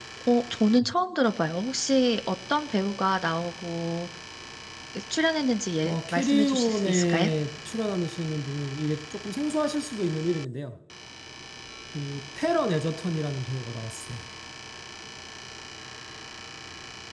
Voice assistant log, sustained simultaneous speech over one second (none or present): present